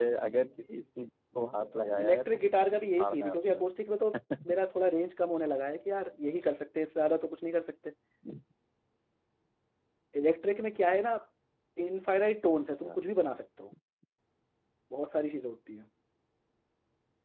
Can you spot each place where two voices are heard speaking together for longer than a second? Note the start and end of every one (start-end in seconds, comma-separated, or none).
2.0-3.6